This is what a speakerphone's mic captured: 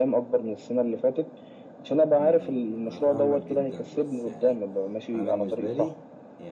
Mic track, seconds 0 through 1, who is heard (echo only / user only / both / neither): echo only